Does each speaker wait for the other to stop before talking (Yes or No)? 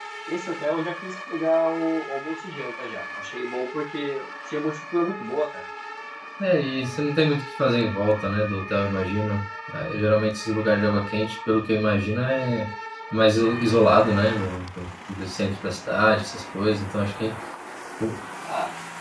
Yes